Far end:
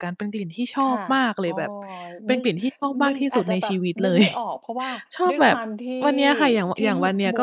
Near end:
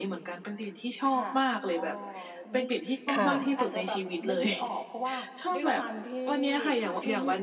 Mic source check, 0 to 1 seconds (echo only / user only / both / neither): echo only